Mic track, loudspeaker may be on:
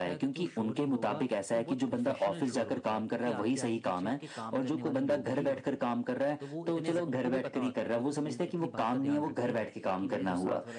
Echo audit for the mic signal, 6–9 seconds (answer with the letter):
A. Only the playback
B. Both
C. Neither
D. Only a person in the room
B